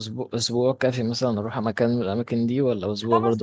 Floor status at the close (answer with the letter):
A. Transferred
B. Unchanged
A